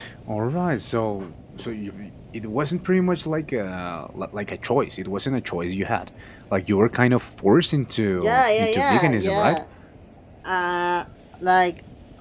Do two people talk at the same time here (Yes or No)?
Yes